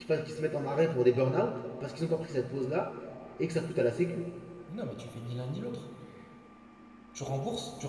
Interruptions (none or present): none